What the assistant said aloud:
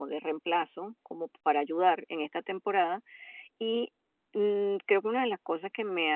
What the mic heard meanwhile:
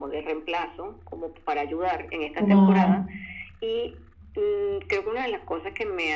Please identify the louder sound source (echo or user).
user